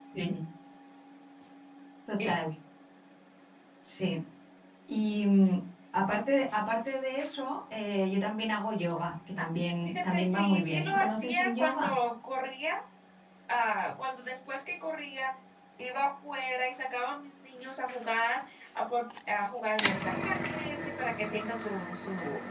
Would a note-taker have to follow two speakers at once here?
Yes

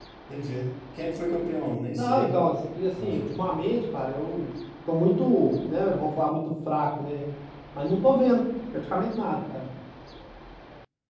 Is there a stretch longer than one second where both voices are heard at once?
No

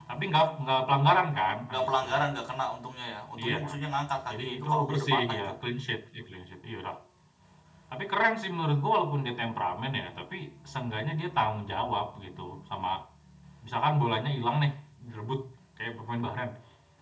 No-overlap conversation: No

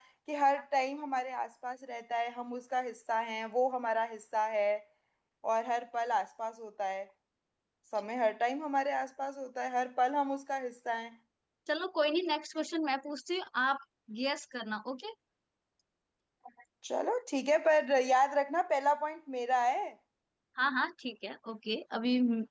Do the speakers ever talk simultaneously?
No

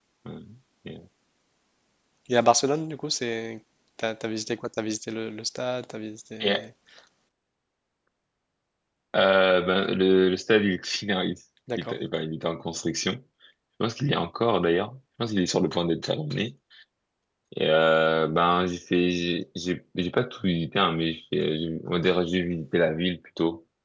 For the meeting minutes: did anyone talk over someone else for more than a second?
No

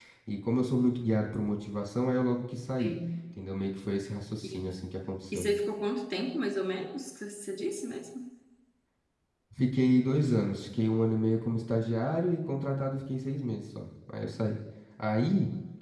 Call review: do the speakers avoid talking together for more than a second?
Yes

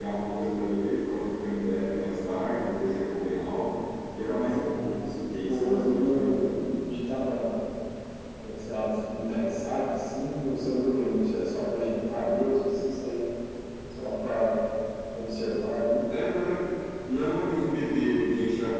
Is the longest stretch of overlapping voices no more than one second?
No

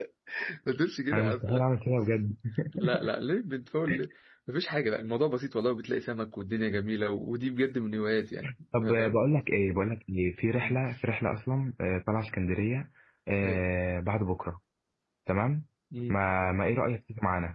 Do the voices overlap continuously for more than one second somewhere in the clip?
No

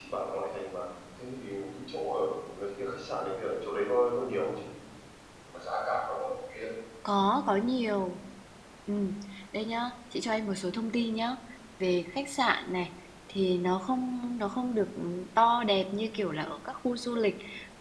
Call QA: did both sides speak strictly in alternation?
Yes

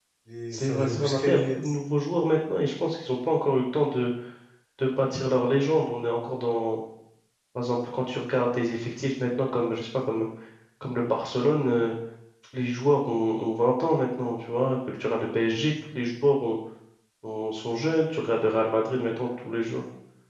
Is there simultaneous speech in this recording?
Yes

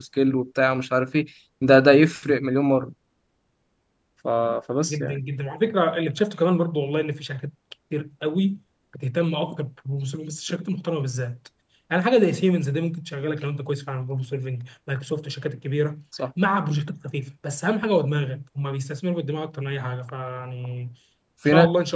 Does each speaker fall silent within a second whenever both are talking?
Yes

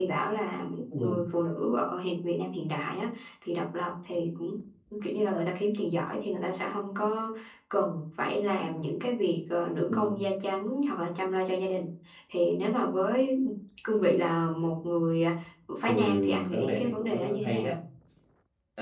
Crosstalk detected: Yes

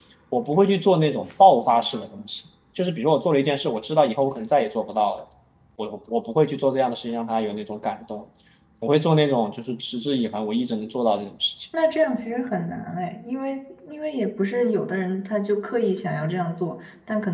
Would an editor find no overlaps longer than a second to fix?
Yes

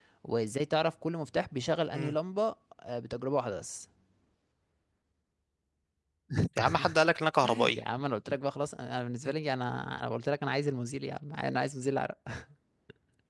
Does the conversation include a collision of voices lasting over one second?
No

